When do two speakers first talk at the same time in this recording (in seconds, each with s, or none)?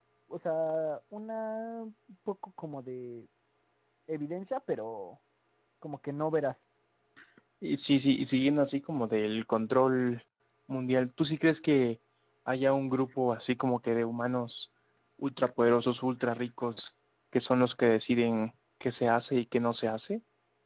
none